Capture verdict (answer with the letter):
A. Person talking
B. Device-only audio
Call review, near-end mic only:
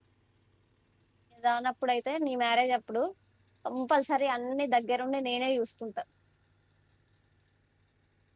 A